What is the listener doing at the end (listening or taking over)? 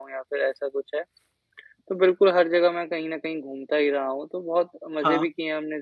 listening